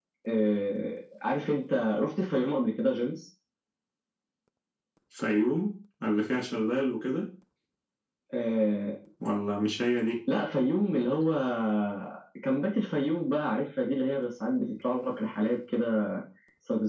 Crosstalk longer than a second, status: none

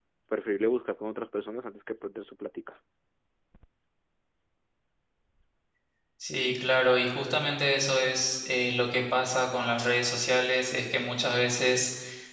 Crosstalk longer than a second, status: none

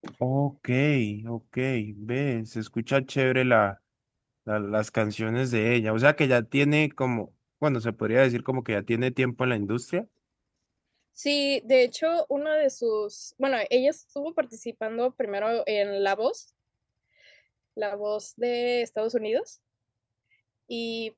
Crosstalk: none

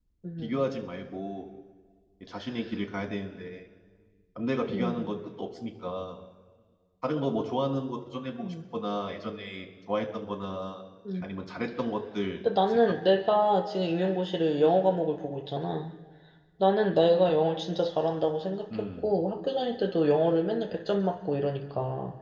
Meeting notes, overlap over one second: none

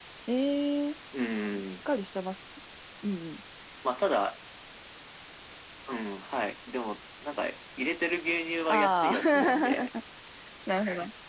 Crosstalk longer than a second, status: present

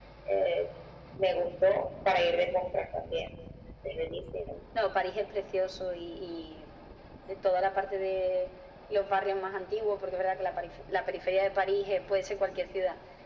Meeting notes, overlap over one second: none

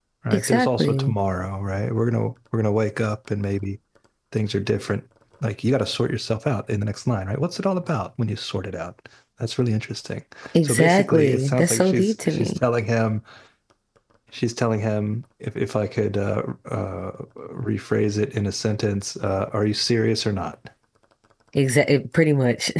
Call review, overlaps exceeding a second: present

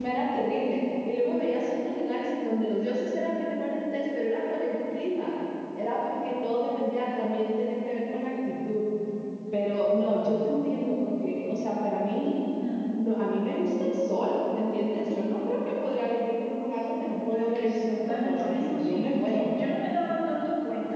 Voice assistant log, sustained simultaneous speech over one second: present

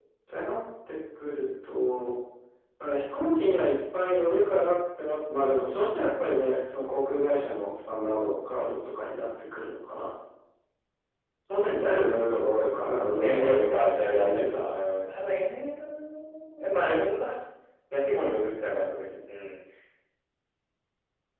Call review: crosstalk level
present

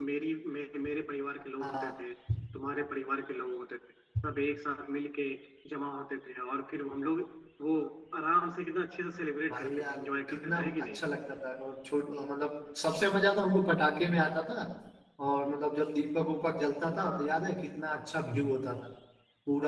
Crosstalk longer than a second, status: present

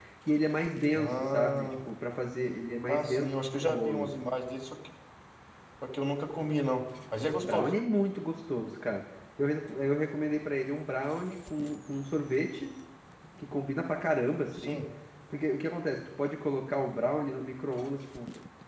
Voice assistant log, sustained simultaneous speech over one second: present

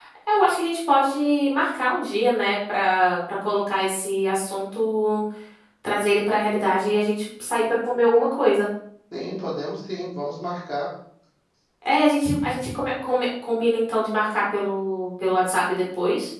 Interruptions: none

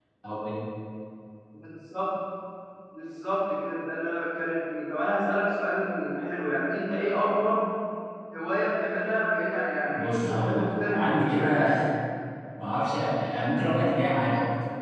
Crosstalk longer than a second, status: present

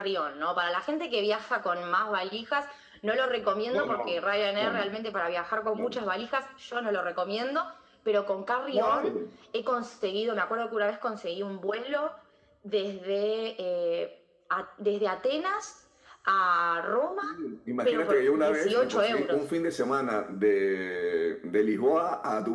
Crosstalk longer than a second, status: present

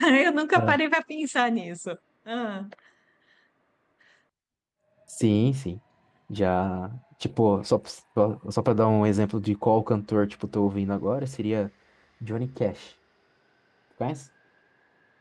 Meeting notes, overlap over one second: none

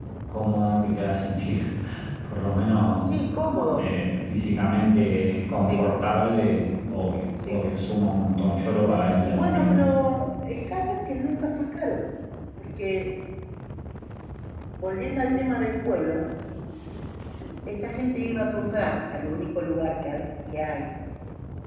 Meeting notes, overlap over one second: none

